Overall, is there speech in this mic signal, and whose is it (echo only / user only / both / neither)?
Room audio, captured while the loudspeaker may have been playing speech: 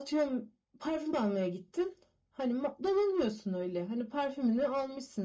echo only